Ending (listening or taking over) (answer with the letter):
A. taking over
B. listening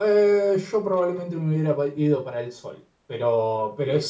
B